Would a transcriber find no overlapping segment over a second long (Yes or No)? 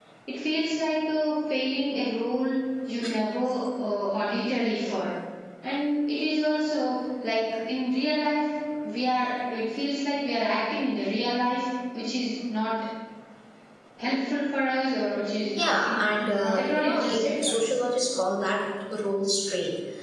No